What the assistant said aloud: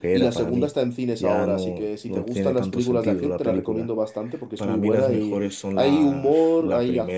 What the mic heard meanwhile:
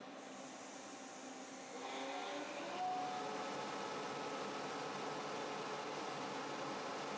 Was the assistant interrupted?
No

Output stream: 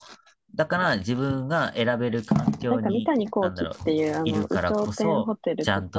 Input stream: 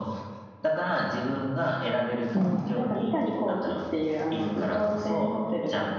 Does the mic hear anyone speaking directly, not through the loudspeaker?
Yes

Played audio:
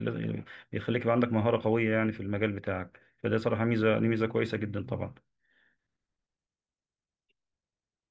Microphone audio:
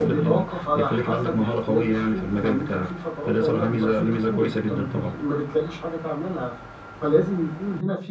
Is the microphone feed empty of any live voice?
No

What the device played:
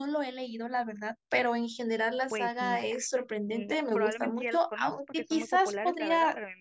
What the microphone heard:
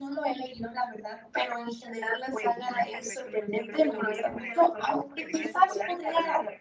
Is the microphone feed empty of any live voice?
No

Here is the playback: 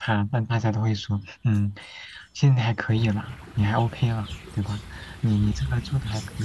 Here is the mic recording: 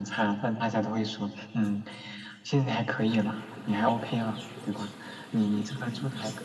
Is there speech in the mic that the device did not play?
No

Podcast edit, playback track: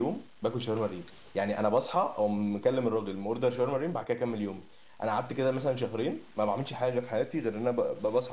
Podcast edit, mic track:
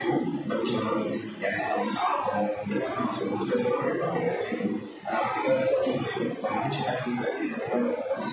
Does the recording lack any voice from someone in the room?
Yes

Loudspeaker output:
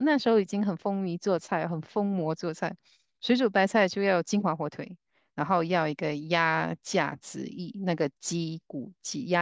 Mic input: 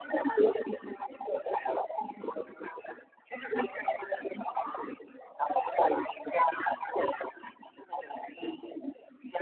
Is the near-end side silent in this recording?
Yes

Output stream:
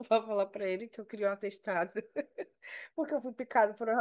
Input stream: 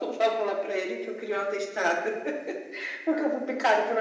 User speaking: No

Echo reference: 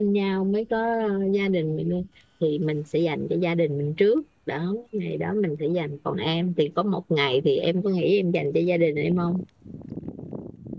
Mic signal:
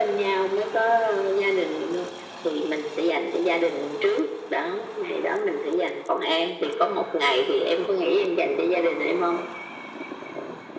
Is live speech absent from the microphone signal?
Yes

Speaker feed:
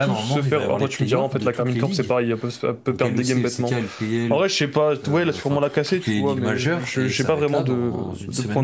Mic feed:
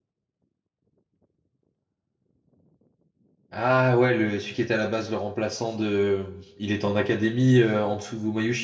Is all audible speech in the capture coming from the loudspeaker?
No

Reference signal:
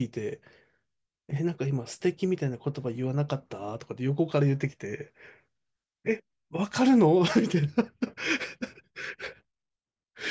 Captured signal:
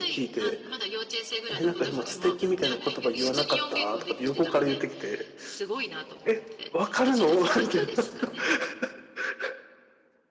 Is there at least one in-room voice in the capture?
Yes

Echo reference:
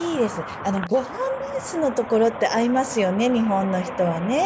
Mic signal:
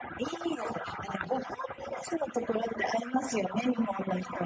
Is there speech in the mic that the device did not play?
No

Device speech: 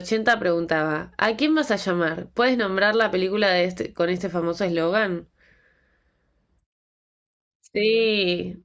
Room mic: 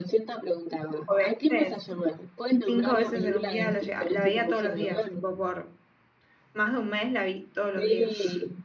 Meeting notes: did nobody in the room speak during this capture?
No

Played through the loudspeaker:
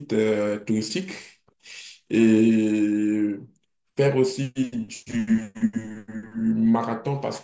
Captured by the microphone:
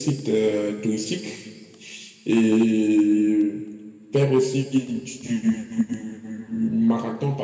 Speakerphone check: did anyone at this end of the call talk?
No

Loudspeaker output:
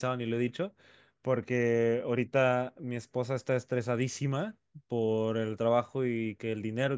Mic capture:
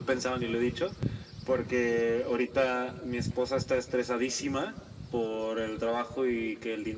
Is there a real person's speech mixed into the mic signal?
No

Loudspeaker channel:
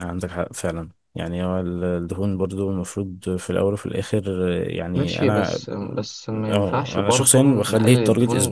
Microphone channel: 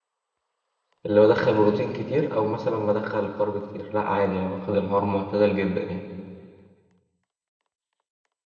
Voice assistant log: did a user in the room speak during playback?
Yes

